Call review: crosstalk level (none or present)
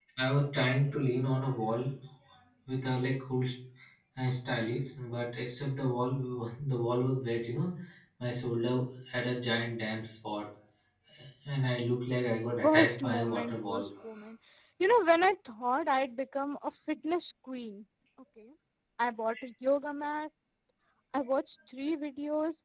present